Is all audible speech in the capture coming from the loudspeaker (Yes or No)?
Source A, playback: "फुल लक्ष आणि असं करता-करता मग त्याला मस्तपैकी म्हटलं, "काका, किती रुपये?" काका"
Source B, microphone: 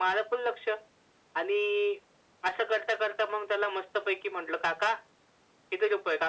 Yes